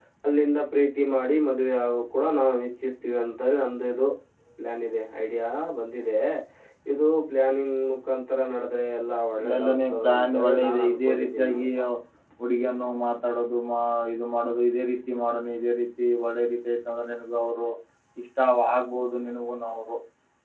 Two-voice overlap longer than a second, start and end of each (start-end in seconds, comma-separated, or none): 9.4-11.7